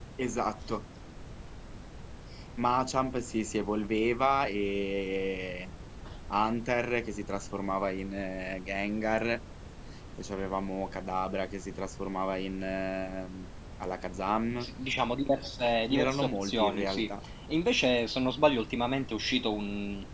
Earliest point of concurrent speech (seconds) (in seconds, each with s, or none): 15.9 s